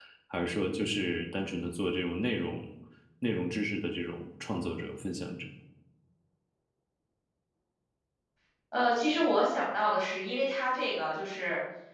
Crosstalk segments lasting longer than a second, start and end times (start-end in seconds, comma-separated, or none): none